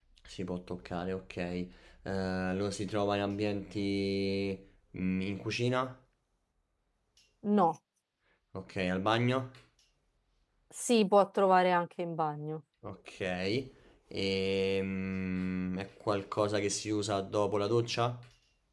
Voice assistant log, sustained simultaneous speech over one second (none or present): none